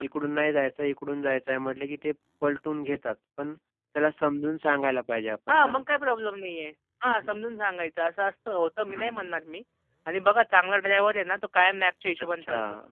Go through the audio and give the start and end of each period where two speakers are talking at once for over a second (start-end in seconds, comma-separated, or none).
none